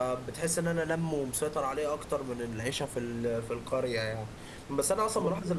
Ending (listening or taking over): listening